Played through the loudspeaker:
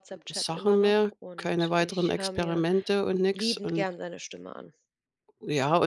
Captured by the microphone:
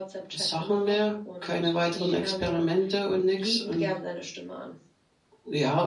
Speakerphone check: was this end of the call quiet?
Yes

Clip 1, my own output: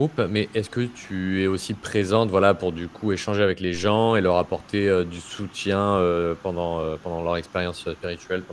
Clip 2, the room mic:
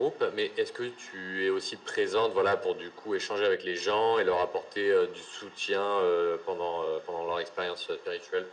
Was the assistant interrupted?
No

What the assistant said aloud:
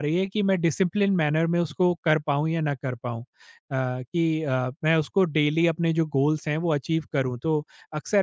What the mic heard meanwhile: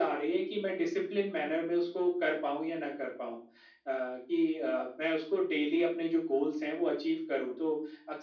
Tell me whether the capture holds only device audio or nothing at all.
Yes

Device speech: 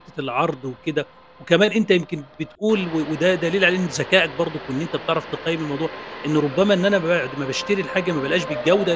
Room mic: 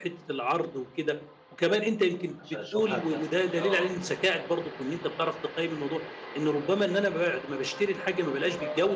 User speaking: Yes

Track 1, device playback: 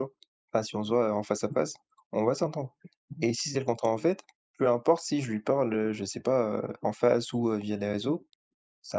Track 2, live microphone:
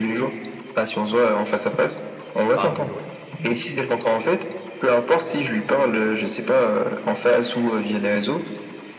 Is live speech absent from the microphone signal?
No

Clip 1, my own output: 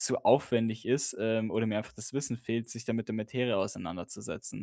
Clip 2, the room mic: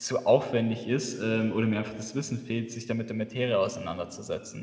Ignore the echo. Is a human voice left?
No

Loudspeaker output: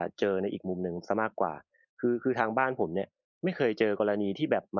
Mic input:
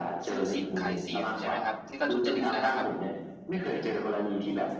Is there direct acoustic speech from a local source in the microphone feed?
Yes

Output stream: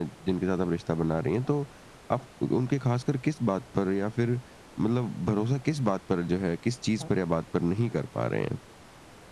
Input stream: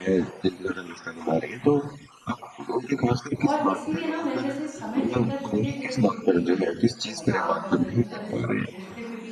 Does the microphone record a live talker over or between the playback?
Yes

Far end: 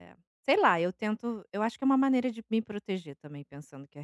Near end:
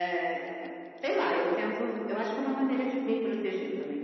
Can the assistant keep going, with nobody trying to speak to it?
Yes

